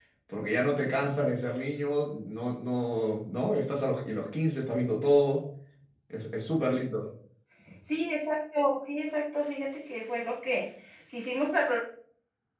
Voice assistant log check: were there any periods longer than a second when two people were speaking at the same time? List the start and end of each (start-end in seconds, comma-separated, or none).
none